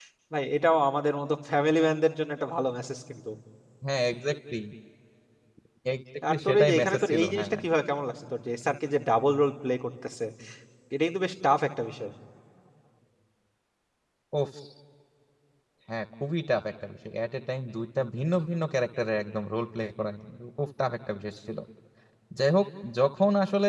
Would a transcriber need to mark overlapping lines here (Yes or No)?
Yes